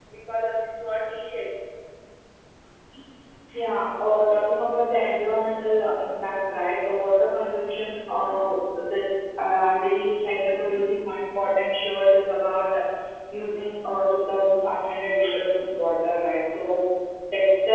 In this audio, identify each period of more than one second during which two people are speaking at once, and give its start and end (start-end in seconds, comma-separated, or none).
none